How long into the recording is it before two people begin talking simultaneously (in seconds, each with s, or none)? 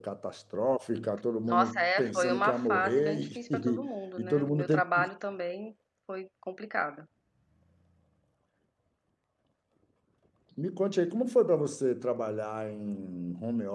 1.5 s